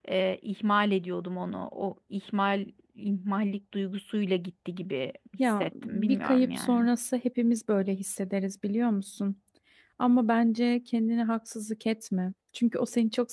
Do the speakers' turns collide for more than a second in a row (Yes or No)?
Yes